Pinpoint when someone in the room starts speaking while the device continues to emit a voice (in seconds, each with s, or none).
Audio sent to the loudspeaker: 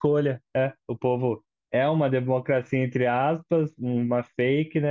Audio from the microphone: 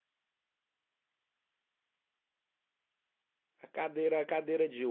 3.6 s